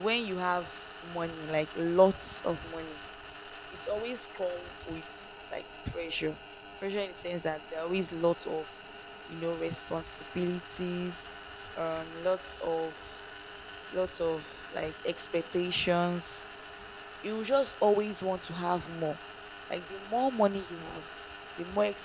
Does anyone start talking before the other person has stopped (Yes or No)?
No